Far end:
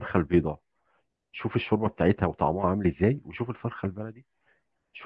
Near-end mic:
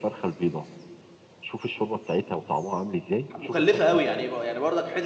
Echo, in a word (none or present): present